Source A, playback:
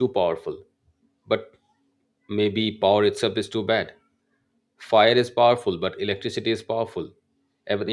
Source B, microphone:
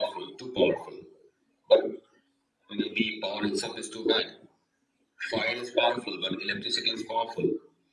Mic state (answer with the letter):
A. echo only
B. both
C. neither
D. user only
A